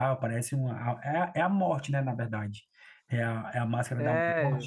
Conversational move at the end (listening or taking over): taking over